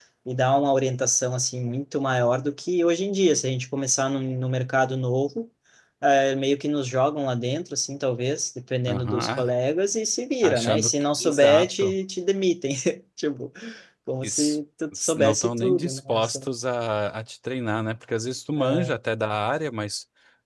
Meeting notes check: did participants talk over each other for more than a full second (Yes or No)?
Yes